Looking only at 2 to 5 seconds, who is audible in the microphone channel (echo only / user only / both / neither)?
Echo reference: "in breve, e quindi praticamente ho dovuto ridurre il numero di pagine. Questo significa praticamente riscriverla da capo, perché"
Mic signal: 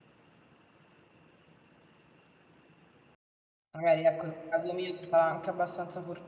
user only